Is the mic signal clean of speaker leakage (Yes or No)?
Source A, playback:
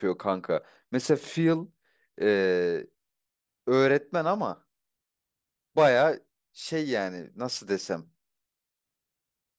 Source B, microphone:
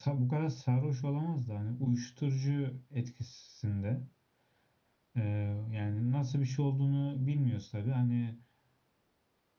Yes